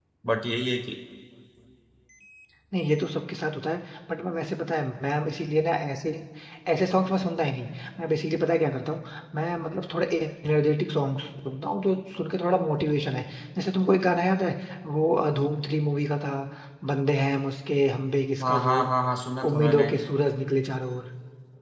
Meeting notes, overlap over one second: none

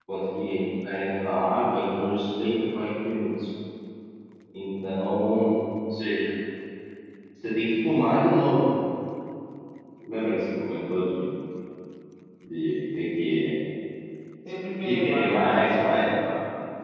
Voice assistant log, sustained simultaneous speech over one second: present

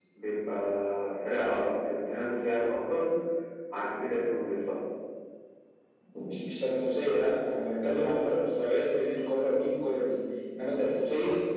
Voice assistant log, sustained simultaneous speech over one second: none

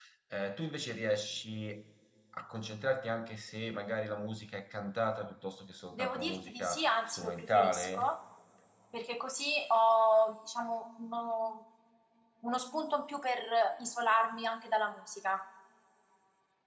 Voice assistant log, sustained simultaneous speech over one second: present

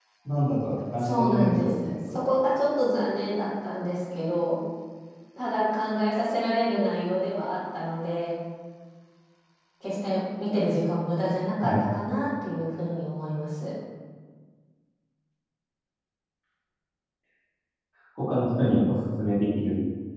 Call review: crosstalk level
present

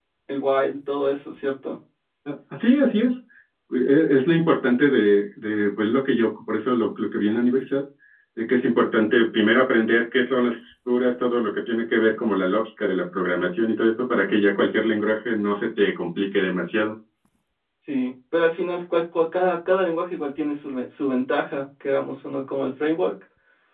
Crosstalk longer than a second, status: none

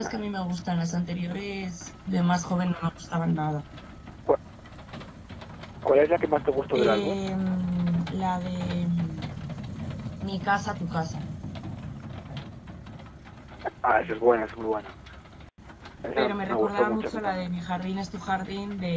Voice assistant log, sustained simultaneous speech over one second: present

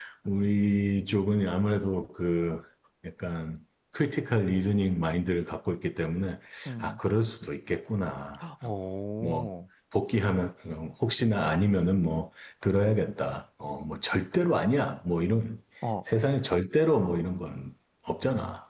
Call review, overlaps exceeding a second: none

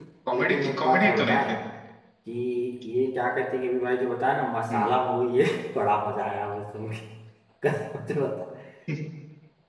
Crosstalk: present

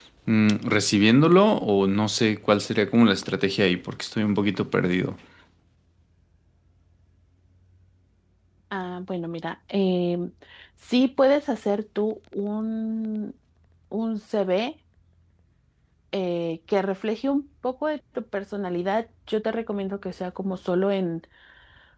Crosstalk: none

